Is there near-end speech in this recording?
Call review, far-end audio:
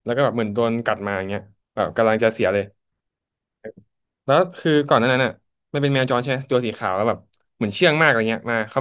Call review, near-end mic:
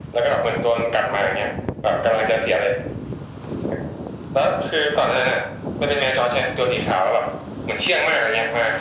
No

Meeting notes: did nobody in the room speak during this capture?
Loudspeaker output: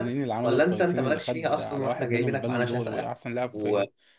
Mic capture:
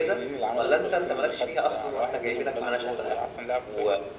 Yes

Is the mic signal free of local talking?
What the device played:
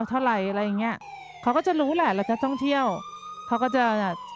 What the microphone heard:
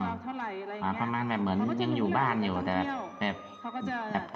No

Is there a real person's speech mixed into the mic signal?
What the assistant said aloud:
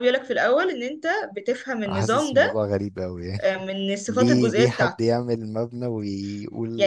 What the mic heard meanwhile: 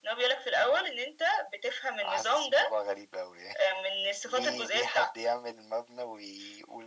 No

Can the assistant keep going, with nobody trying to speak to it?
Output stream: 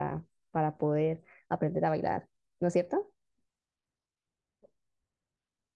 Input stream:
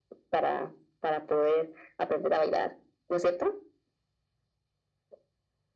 Yes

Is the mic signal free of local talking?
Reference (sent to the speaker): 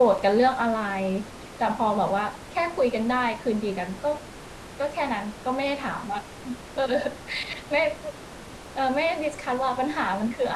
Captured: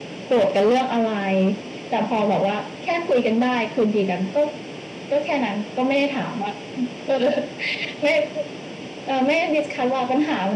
Yes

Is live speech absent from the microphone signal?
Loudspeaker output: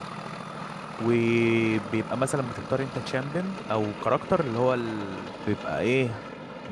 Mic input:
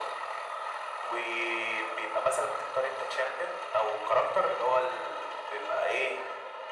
Yes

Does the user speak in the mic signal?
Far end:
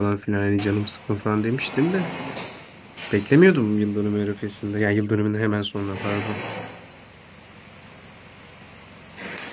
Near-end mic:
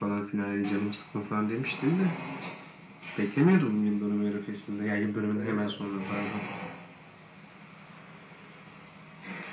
Yes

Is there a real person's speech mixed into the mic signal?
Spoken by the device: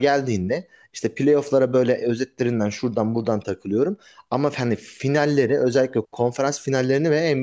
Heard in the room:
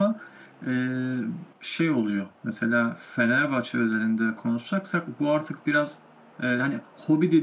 Yes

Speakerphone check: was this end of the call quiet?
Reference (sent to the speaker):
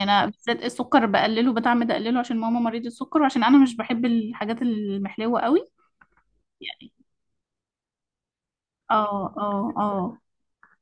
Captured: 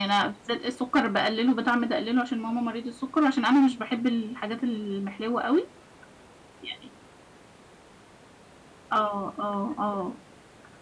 Yes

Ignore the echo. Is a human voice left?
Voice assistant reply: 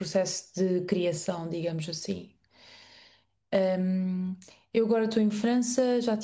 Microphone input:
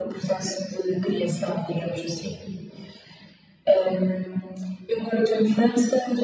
No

